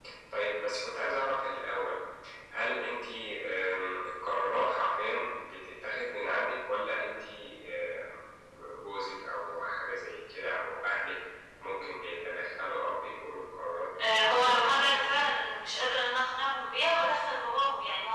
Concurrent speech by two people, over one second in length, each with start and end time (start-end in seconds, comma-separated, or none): 14.1-15.4